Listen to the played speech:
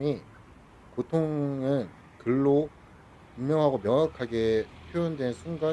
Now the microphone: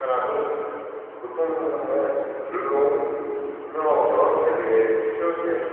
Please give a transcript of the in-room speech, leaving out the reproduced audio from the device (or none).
none